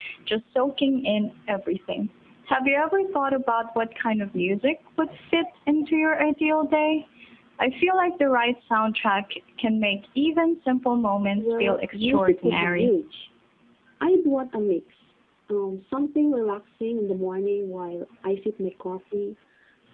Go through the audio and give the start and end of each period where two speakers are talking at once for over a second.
11.4-12.9

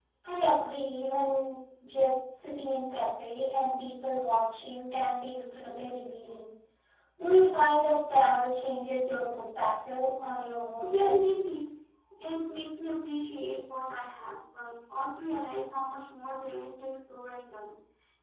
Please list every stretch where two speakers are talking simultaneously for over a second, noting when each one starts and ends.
none

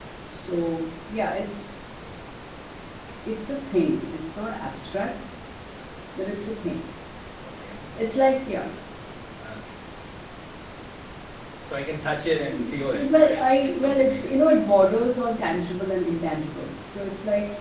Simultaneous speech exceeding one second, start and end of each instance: 12.9-14.3

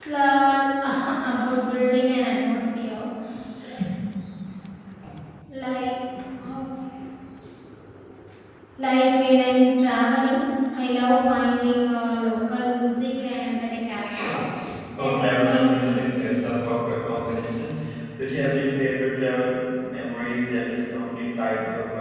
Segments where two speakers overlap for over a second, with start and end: 15.0-16.4

